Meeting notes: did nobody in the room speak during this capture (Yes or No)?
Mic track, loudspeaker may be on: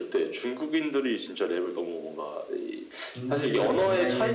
No